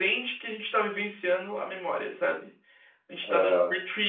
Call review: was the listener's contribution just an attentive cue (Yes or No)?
Yes